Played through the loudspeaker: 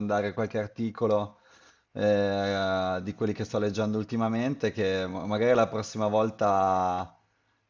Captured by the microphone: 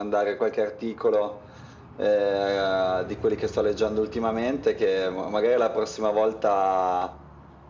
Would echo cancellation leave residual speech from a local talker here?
No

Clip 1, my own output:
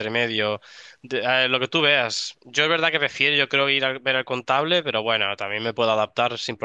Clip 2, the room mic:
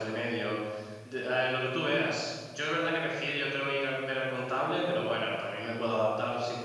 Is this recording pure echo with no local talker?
Yes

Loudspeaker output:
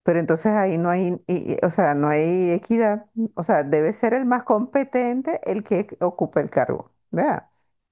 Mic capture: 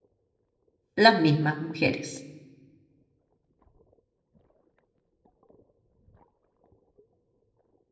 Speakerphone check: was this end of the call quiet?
No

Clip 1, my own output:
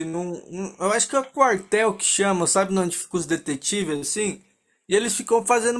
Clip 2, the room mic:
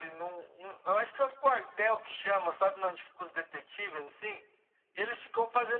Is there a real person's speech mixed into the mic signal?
No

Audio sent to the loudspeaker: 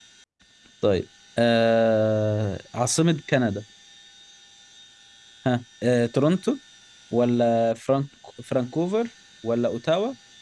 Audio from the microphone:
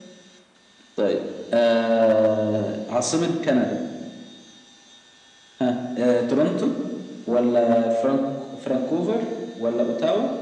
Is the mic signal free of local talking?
Yes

